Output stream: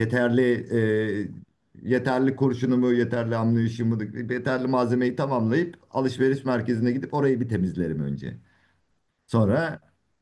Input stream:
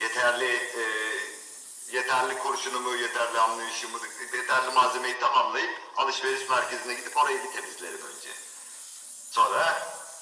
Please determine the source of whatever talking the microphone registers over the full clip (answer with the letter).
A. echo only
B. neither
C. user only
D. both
A